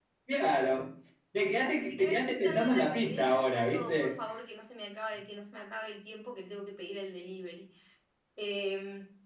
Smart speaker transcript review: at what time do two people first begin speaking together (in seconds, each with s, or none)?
1.8 s